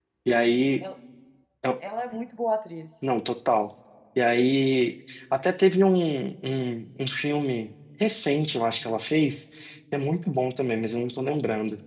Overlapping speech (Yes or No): No